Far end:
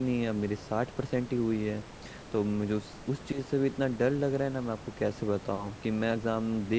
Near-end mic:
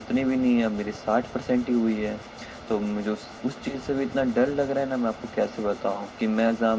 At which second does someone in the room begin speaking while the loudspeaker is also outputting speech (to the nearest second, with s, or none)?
none